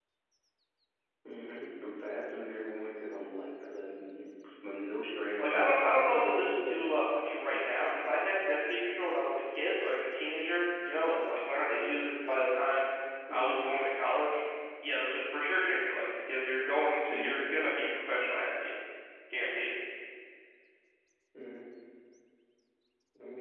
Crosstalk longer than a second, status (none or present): present